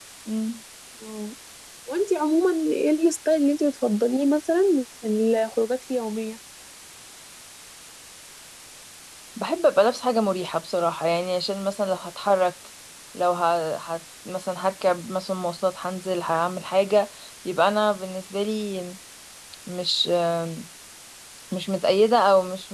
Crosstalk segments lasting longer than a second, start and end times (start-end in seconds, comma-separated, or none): none